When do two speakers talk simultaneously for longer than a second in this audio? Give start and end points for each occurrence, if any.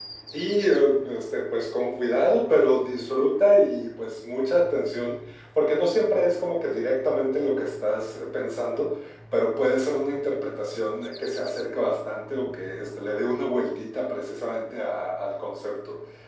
none

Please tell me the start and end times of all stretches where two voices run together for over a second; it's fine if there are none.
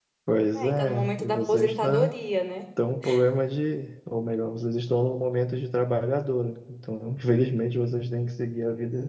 0.6-2.1

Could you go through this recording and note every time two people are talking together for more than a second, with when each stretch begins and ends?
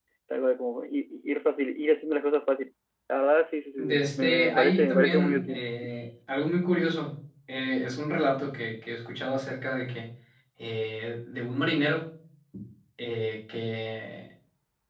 3.8-5.6

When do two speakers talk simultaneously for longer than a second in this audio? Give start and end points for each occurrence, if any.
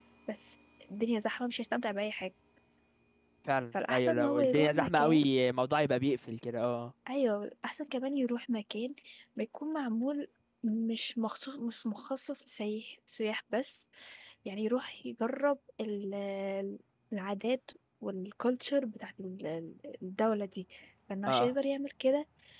3.9-5.2

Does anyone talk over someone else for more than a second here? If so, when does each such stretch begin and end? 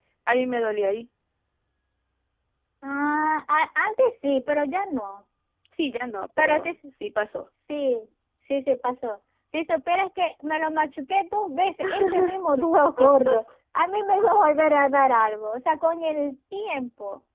none

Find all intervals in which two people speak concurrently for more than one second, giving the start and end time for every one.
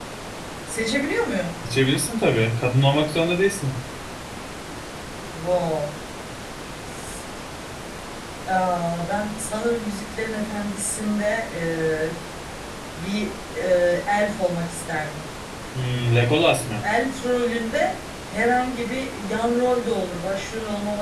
none

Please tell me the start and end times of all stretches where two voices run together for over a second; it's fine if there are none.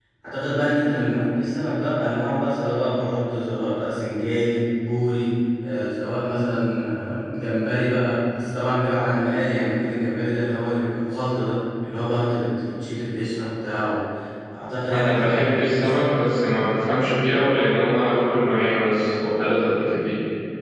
14.9-16.1

